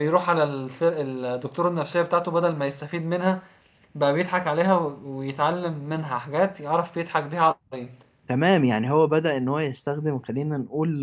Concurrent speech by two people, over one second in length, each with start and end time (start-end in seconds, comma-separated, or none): none